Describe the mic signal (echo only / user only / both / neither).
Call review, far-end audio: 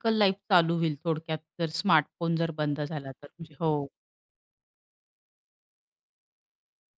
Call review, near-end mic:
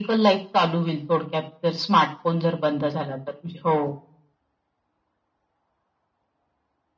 echo only